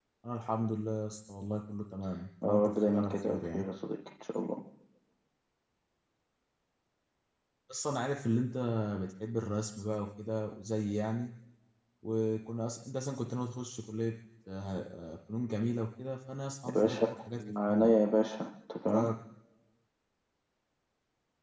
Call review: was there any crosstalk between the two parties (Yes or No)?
Yes